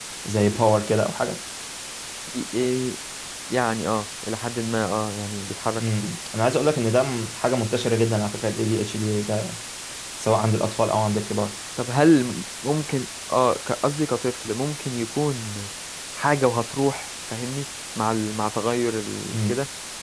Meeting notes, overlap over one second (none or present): none